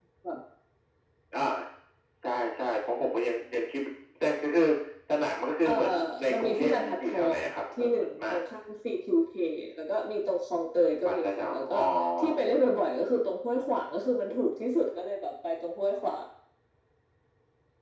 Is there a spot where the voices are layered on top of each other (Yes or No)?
Yes